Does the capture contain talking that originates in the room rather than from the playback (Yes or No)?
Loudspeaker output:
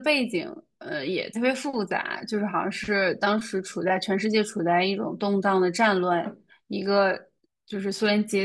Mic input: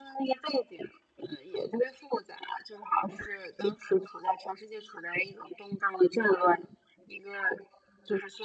No